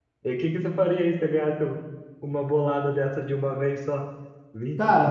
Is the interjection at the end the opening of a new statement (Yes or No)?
No